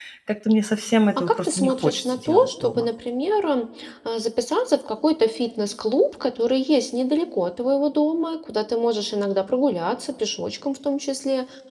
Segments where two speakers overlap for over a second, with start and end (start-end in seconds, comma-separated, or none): 1.2-2.8